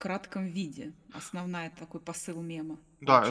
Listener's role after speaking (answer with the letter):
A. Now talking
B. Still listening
A